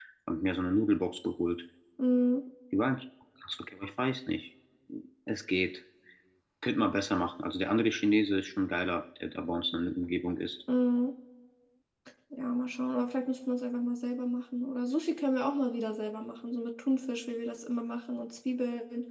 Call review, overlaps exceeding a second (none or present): none